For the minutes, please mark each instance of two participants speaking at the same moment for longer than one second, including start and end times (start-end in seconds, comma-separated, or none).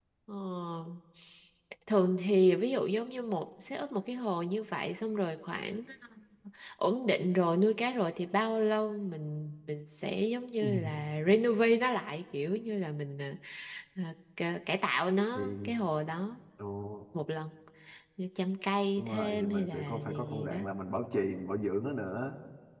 19.0-20.6